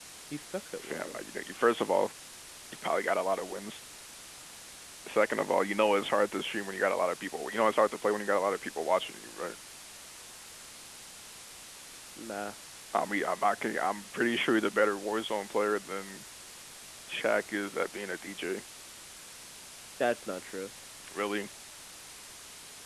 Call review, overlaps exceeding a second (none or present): none